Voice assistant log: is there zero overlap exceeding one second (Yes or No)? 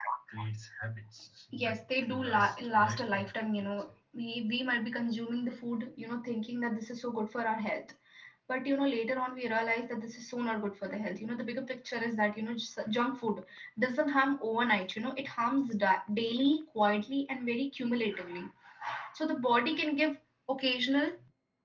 No